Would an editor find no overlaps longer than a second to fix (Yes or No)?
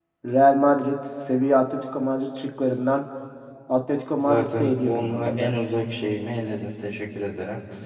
No